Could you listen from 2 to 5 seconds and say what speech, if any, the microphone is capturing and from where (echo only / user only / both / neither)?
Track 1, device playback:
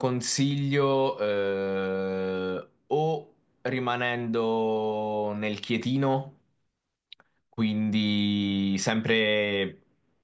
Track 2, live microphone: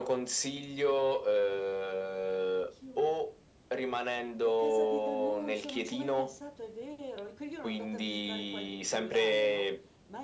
both